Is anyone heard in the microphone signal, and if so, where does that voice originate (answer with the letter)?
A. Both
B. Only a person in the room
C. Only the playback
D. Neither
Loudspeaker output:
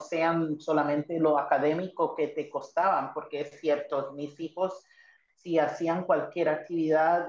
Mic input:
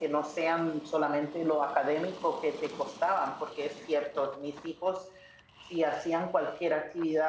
C